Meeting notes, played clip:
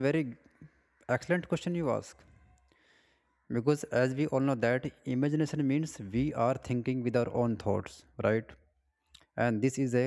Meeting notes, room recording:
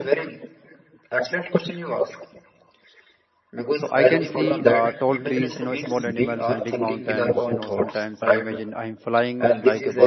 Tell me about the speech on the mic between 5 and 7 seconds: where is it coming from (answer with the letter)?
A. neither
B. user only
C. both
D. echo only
C